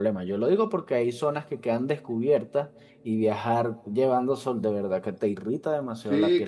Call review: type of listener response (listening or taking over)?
taking over